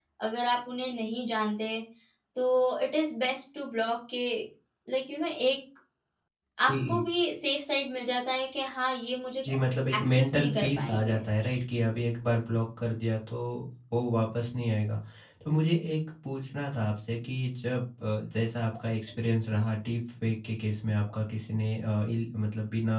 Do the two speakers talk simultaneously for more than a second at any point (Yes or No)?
Yes